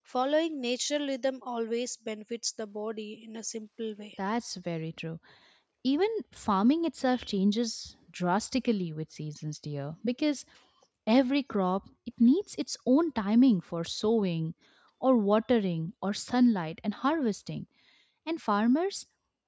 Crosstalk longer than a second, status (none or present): none